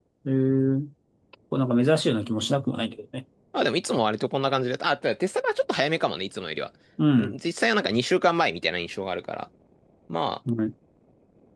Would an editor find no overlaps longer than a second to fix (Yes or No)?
Yes